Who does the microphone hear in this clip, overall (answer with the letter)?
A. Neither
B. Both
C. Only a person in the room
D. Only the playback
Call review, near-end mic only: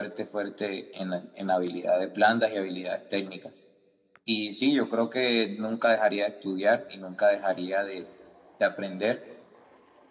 D